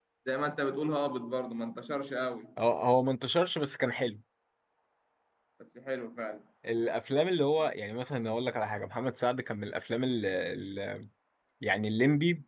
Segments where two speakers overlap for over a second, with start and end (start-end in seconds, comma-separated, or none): none